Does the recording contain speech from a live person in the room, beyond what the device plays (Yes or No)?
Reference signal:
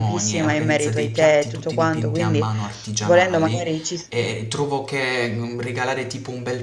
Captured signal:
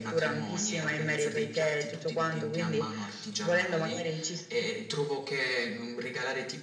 No